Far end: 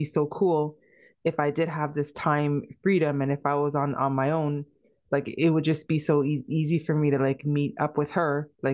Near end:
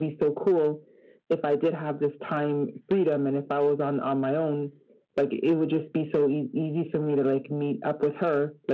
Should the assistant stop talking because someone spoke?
No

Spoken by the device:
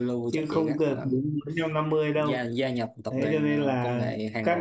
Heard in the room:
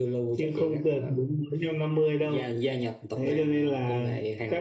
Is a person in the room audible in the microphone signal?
No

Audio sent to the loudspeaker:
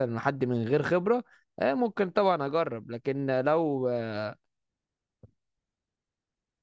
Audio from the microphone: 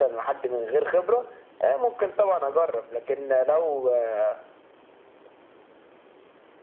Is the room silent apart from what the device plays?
Yes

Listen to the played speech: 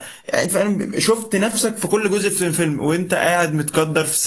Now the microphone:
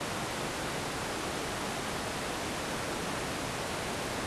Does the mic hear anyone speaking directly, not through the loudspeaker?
No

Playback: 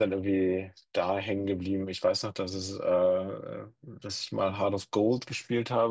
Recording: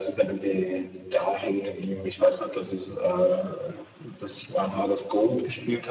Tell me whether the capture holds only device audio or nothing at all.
Yes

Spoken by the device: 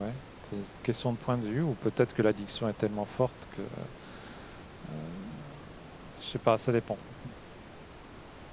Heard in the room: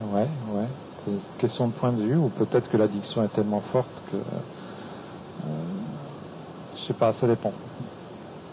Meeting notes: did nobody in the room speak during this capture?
Yes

